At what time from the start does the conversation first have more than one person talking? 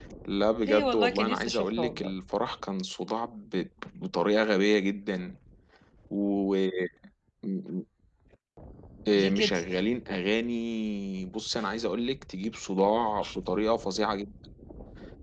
0.6 s

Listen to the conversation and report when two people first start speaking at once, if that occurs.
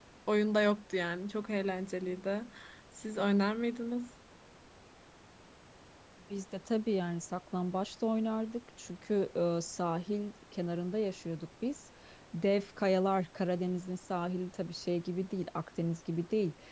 none

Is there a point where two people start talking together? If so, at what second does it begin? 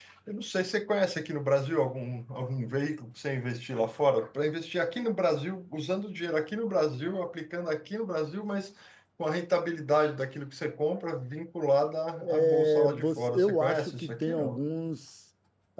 12.2 s

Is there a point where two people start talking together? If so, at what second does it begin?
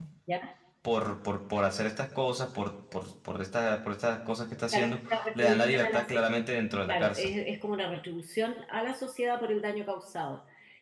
4.7 s

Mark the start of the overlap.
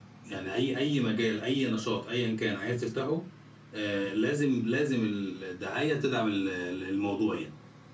none

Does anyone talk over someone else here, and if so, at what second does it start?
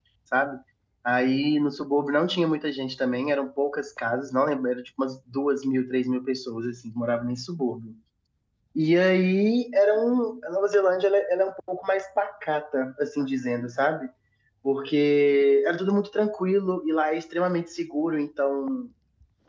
none

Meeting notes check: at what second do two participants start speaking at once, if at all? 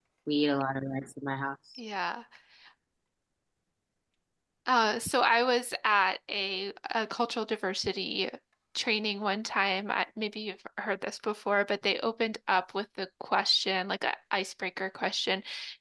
none

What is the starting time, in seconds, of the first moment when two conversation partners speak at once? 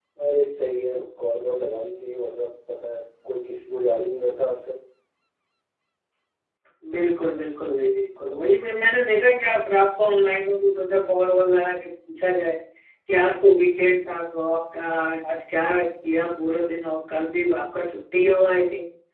none

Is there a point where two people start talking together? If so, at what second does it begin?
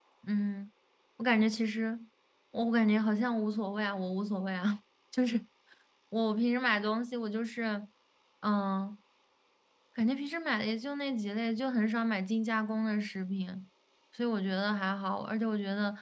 none

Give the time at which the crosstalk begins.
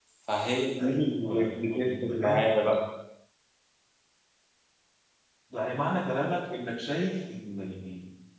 0.8 s

